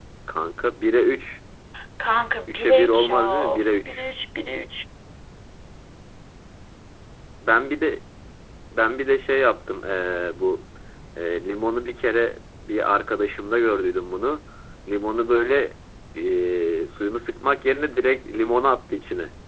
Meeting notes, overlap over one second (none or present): present